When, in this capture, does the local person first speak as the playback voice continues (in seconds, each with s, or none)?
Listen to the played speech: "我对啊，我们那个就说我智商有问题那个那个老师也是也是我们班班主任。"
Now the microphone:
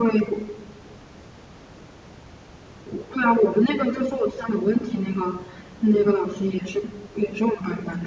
none